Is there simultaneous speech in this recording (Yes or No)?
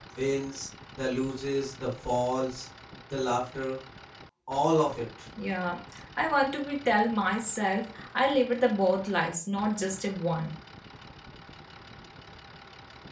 No